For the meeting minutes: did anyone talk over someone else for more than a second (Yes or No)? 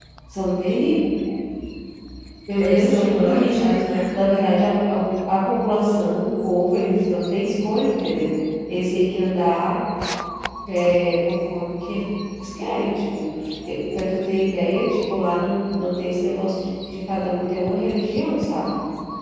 Yes